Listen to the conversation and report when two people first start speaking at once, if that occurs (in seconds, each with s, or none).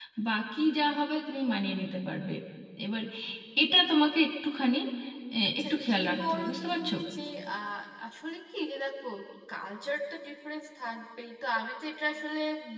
5.6 s